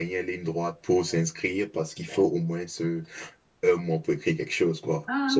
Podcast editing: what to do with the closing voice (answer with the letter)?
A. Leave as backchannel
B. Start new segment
B